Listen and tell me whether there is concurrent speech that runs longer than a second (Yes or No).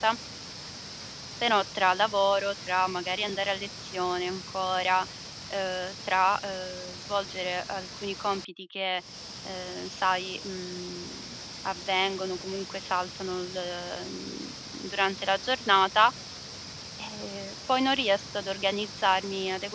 No